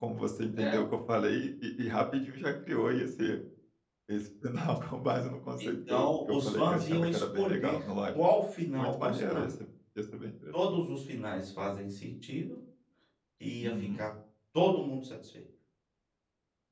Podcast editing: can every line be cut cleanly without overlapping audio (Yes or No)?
No